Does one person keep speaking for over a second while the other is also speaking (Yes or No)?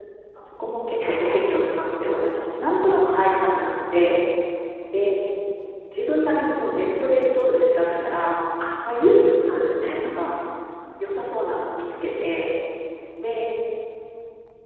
No